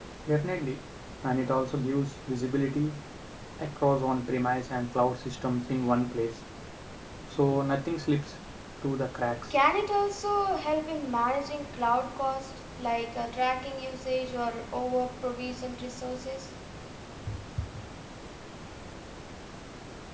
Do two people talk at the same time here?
No

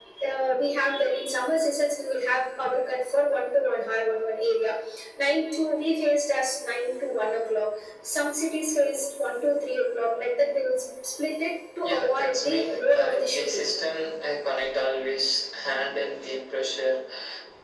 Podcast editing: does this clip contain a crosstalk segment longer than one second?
Yes, from 11.8 s

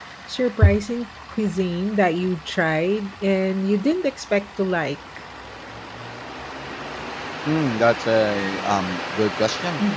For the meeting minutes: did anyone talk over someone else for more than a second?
No

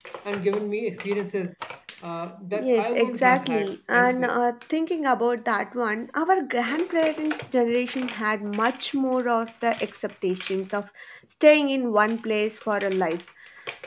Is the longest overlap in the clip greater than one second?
Yes, from 2.6 s

